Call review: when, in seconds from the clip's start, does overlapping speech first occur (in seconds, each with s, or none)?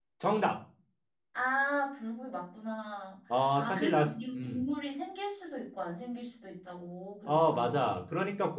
3.3 s